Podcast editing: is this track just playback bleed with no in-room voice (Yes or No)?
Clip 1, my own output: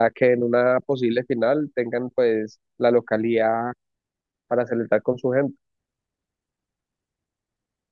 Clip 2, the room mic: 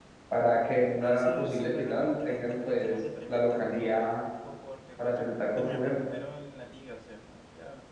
No